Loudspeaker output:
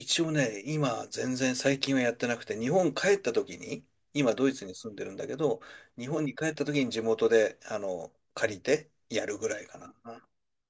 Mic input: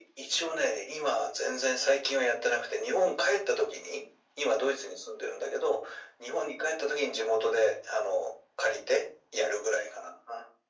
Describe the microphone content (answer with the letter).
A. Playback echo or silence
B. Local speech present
A